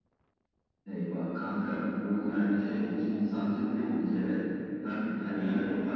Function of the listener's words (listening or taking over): listening